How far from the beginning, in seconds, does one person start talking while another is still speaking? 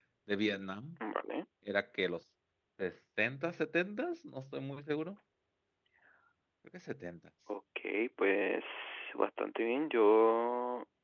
none

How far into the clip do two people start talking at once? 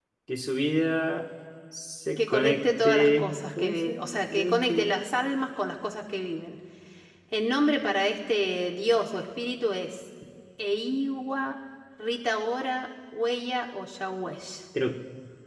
2.2 s

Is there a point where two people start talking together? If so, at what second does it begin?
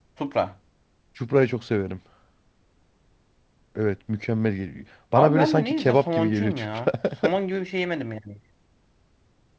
5.2 s

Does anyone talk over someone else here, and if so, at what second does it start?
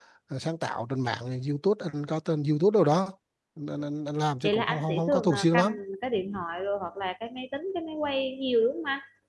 4.4 s

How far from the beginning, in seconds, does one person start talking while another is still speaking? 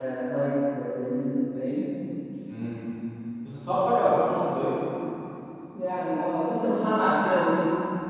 none

